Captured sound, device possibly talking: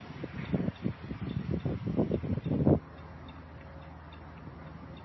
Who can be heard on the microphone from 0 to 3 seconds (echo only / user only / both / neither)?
neither